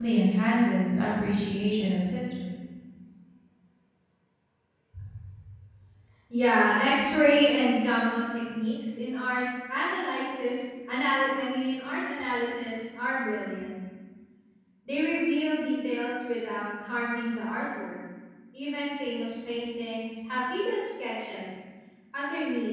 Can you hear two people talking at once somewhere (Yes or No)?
No